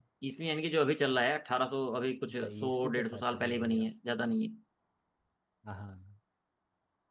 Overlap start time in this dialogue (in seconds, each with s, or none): 2.3 s